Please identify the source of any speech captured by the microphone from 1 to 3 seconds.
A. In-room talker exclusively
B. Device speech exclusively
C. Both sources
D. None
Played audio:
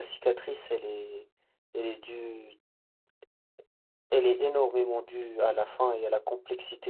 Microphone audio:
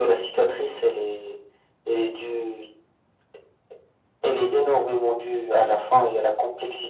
B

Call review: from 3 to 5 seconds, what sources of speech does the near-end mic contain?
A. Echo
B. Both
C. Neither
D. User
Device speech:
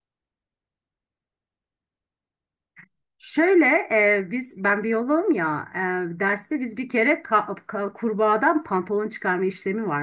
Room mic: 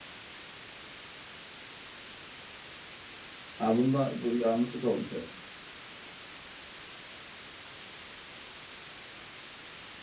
D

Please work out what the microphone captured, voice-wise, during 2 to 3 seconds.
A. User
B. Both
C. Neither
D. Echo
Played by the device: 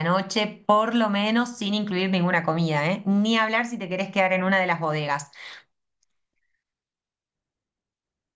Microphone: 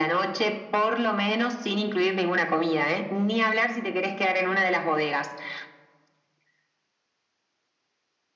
D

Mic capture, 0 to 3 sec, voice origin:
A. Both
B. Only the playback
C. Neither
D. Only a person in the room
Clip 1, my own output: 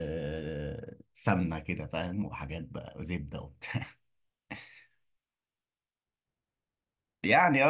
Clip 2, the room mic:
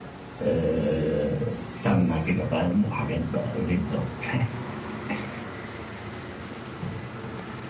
B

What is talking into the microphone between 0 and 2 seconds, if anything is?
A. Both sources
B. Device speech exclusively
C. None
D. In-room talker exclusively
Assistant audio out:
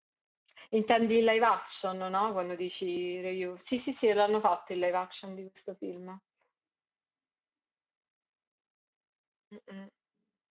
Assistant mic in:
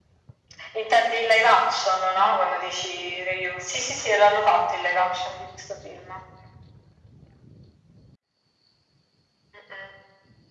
B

